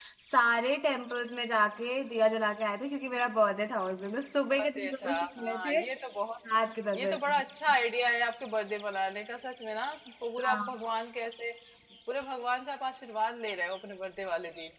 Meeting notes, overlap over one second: present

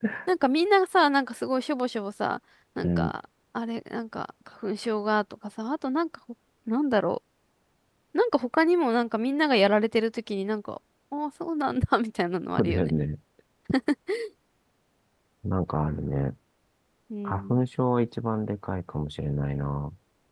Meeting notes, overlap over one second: none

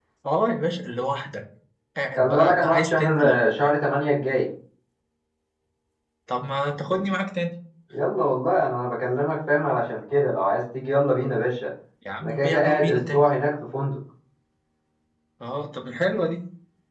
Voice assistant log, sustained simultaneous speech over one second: present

